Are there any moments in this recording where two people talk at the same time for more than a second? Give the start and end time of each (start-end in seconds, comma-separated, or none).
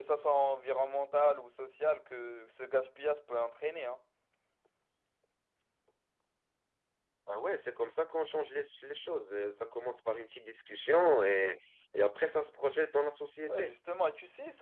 none